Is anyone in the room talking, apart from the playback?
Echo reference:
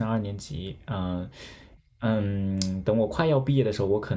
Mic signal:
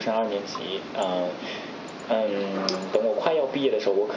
No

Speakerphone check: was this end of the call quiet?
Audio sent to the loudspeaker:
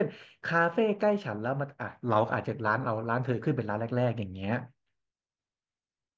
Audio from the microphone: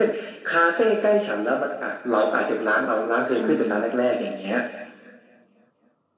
No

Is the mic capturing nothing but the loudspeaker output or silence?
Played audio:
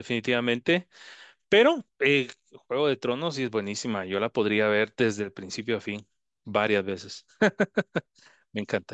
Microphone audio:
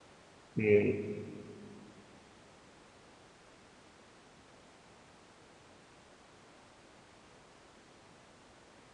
No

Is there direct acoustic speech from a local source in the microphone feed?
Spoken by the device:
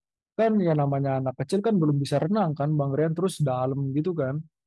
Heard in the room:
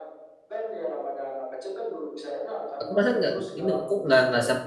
Yes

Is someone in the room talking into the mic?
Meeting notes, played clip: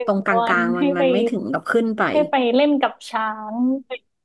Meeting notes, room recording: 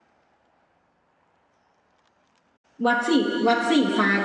Yes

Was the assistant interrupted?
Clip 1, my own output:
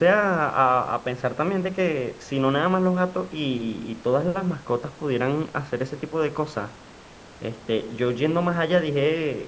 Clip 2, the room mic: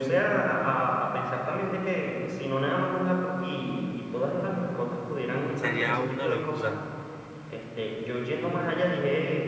Yes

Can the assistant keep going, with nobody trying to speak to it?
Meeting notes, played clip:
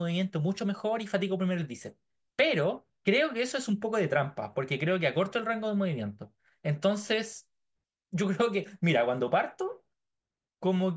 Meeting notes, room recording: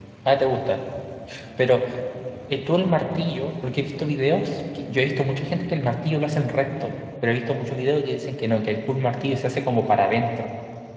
No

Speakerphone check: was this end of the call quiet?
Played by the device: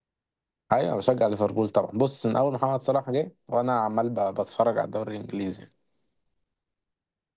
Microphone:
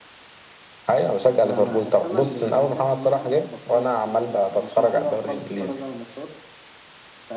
No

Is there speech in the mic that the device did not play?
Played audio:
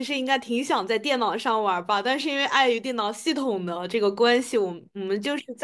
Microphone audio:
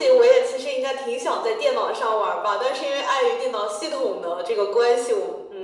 No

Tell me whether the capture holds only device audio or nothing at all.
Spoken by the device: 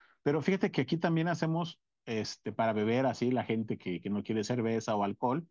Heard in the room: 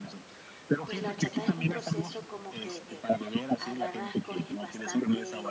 No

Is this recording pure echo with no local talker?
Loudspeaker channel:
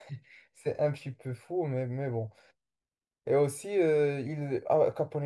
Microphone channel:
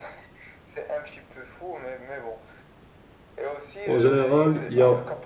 No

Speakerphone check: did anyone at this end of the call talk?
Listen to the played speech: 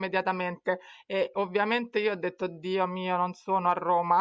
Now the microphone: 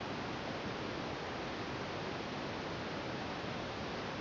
No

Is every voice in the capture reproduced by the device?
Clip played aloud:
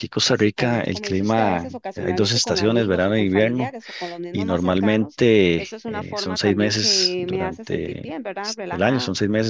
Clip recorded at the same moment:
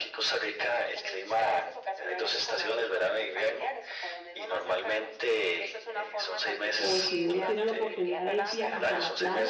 No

